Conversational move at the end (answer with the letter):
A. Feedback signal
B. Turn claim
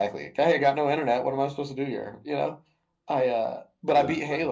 A